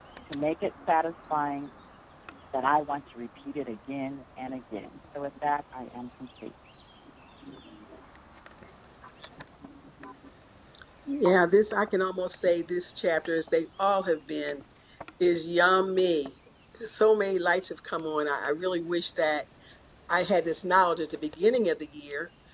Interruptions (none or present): none